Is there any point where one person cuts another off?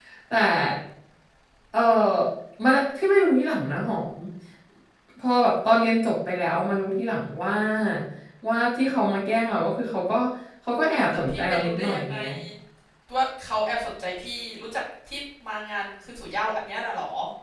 Yes, from 10.9 s

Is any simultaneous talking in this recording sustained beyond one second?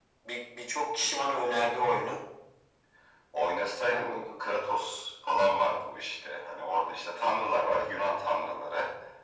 No

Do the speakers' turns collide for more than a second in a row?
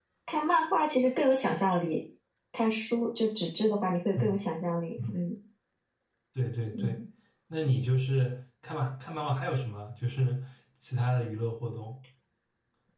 No

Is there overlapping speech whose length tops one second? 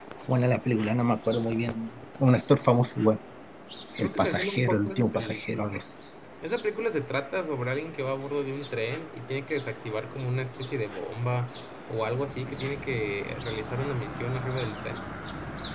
Yes, from 4.0 s

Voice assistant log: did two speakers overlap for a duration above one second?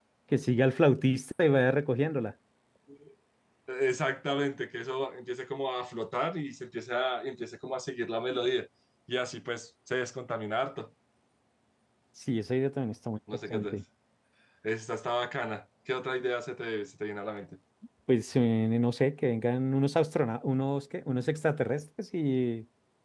No

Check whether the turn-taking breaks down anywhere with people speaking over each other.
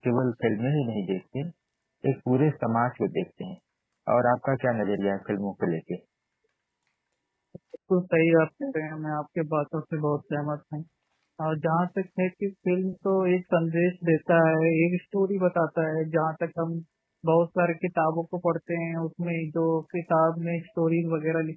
No

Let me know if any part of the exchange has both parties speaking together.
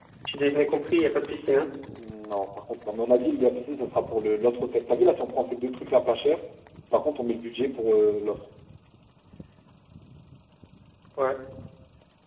No

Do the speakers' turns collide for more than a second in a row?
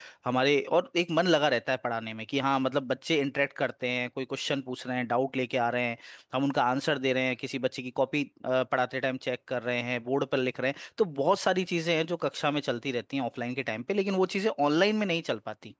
No

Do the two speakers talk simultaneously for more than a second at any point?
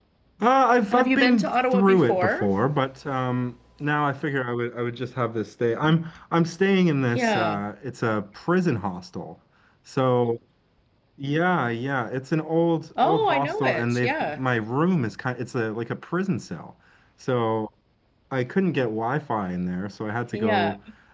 Yes, from 0.9 s

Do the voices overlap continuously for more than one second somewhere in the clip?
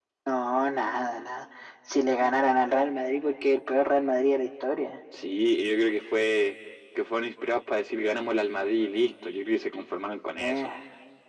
No

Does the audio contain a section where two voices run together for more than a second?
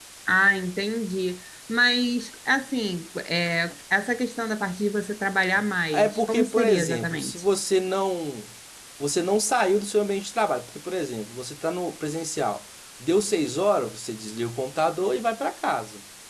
Yes, from 5.9 s

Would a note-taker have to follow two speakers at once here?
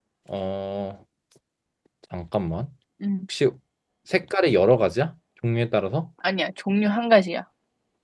No

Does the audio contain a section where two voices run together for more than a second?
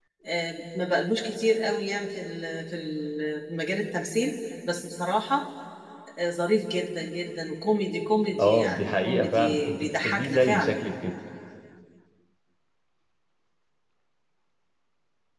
Yes, from 8.4 s

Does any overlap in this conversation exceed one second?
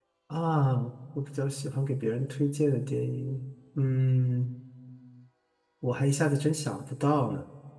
No

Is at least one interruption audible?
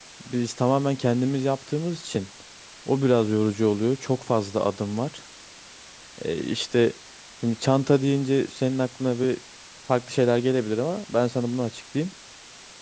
No

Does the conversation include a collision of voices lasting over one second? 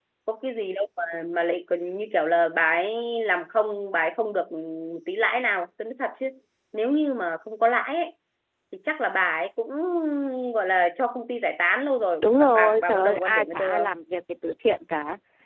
Yes, from 12.2 s

